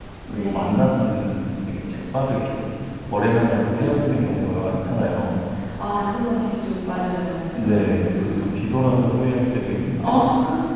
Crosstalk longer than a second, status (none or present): none